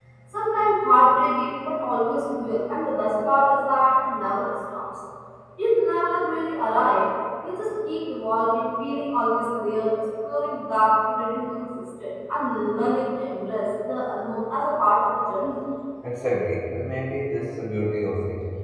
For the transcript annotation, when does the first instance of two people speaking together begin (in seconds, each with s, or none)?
none